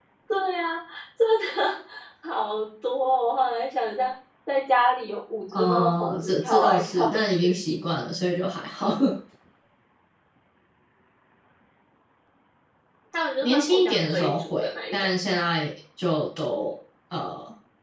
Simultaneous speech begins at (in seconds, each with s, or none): 5.5 s